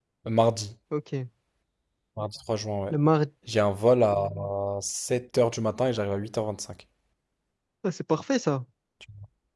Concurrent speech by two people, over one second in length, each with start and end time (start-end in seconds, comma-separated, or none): none